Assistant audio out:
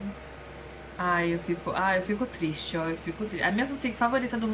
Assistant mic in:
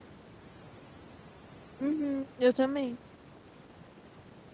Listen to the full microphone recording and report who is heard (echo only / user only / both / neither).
user only